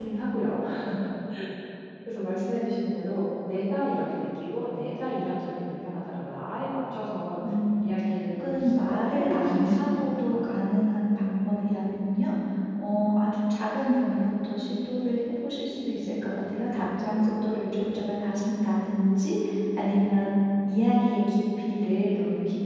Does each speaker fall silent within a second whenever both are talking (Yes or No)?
No